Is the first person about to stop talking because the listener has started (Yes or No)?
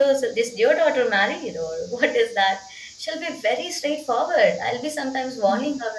No